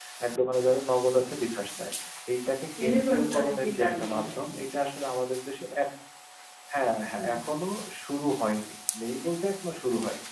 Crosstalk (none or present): present